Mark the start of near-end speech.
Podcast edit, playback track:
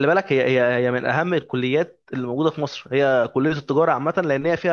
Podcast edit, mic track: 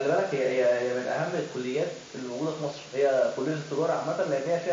none

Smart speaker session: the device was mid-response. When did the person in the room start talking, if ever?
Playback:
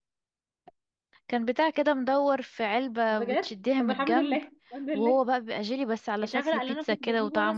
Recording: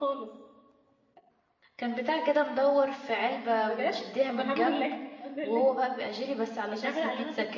none

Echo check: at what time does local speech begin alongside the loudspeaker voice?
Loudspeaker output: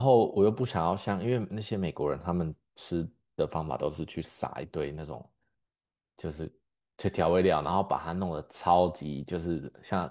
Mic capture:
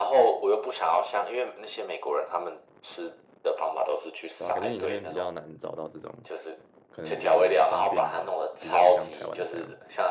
4.4 s

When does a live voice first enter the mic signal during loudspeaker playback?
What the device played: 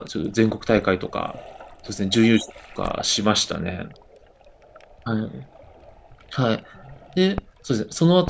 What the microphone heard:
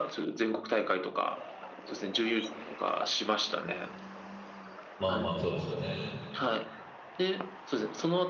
5.0 s

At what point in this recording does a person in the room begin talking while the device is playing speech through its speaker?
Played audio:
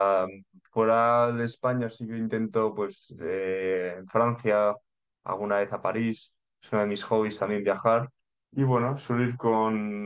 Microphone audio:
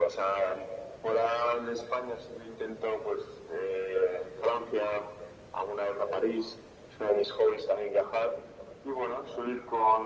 none

